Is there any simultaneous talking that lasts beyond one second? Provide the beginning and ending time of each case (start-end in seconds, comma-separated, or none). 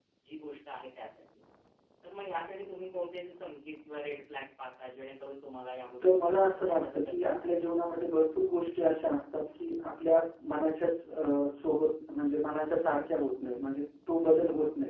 6.0-7.7